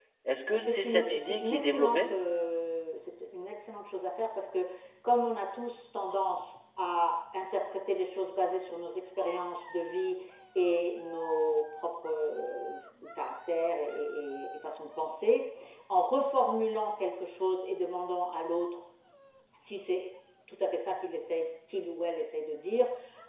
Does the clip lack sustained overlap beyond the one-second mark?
No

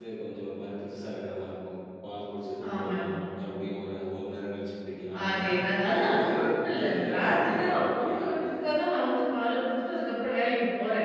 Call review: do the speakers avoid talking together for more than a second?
No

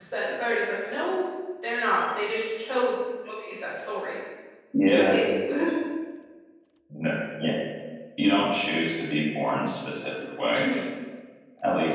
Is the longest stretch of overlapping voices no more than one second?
Yes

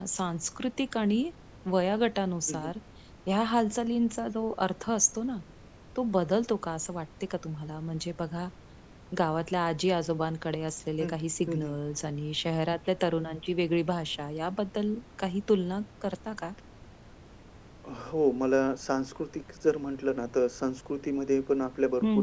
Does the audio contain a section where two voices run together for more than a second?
No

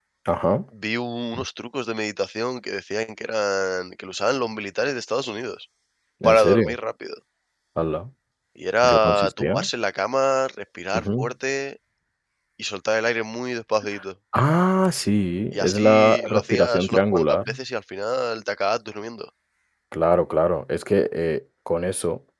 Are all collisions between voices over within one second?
No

